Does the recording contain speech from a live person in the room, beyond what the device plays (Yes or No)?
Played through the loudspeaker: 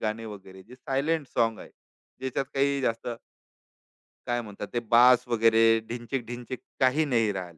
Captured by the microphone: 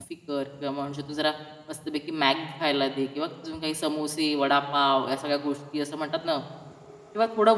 Yes